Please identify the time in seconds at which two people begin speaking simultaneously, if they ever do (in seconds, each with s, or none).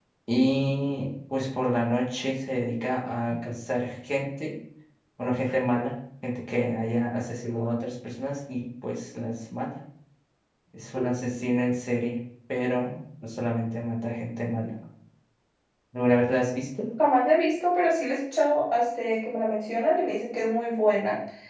none